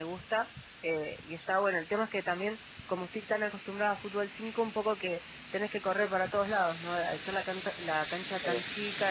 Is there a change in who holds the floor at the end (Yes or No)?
No